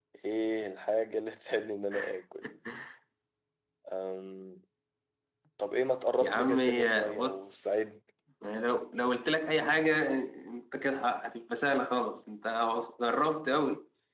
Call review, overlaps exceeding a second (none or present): present